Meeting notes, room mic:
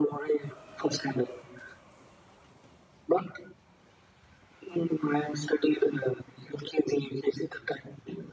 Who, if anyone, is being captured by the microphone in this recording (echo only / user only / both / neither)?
echo only